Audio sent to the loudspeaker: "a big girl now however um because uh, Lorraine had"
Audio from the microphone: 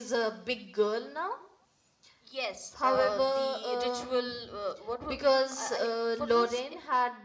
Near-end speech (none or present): present